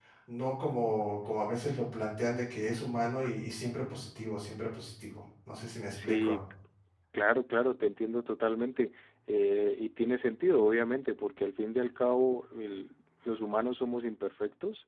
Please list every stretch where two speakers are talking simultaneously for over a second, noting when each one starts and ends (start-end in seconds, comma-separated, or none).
none